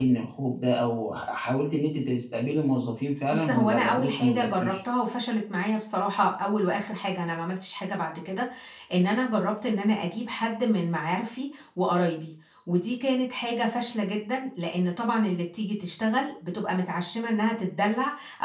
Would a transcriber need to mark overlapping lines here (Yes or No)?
Yes